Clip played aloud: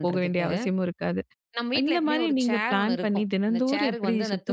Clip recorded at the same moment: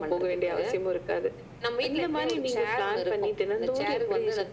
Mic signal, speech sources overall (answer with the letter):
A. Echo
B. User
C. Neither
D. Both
A